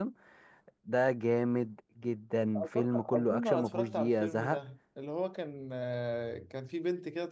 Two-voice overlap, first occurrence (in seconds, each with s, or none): 2.6 s